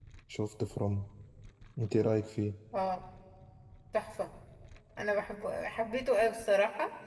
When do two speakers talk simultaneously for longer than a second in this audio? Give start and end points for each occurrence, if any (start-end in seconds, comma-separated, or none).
none